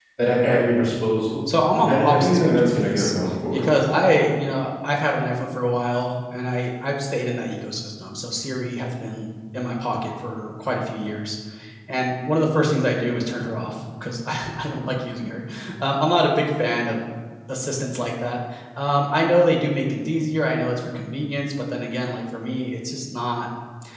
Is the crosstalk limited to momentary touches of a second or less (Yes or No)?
No